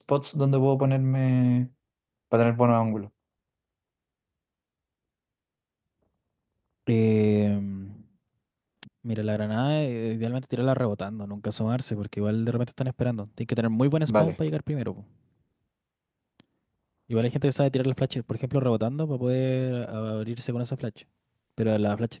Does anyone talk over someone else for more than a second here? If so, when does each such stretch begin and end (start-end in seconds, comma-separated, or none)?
none